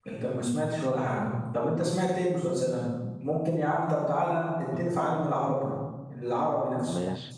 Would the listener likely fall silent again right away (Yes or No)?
No